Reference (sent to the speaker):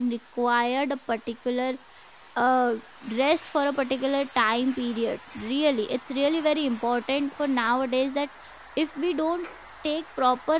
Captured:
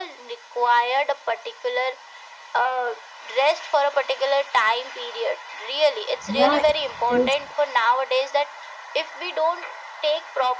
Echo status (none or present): present